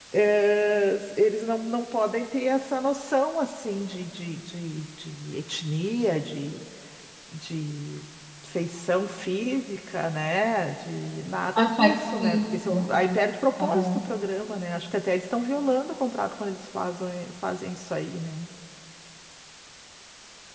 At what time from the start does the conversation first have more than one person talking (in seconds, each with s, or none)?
11.6 s